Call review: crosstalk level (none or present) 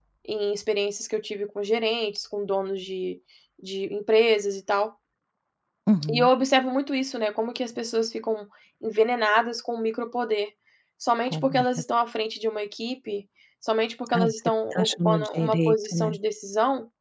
present